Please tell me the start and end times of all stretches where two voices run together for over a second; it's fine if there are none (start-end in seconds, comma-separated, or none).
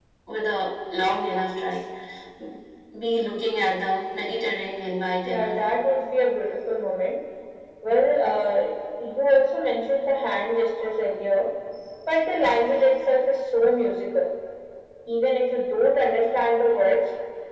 none